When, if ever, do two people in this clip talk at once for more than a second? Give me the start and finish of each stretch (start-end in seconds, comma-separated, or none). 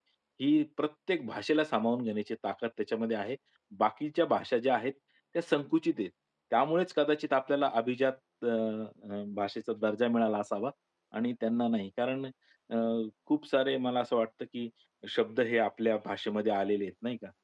none